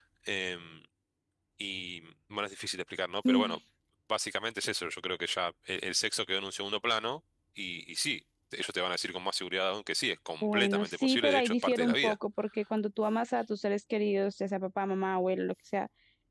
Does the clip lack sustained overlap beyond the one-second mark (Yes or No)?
No